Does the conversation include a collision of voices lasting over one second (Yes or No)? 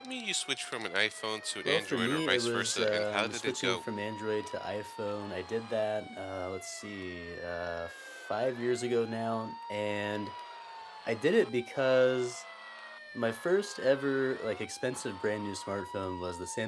Yes